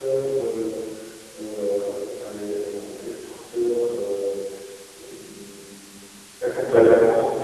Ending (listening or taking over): listening